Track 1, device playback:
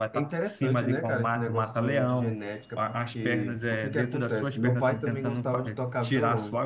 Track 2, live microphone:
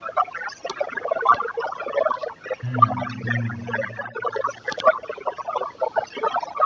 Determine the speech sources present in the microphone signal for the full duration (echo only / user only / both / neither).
both